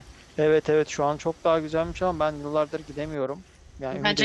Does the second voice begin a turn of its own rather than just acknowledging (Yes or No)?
No